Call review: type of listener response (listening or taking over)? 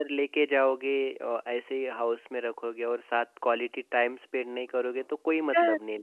taking over